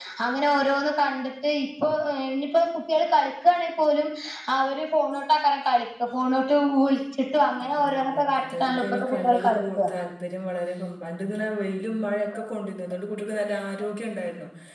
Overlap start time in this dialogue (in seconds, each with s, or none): 7.7 s